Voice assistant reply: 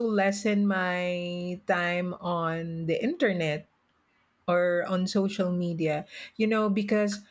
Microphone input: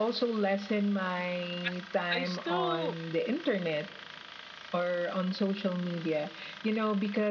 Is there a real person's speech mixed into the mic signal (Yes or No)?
Yes